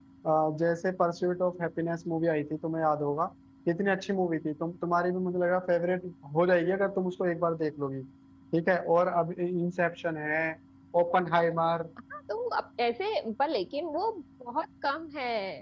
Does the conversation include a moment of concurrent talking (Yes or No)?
No